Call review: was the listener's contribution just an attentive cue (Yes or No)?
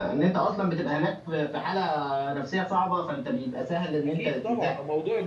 No